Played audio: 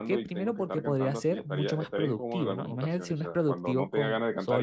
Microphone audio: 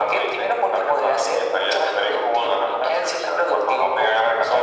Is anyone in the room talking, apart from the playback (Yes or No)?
No